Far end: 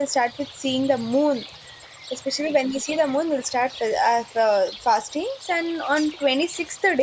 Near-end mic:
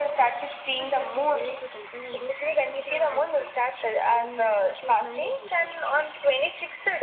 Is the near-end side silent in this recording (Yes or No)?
No